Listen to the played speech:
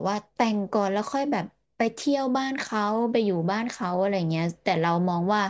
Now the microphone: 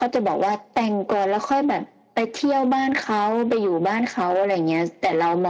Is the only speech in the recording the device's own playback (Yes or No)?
Yes